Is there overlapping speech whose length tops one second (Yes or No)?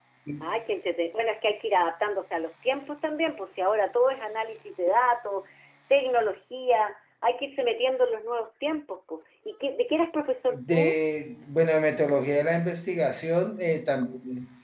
No